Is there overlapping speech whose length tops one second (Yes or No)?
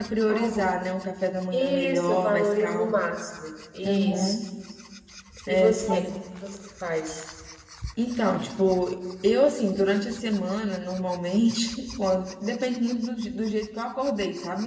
Yes